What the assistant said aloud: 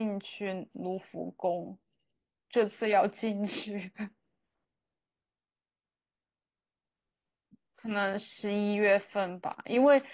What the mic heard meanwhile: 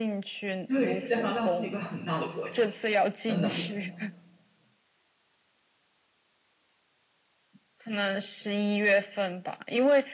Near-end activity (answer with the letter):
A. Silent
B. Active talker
B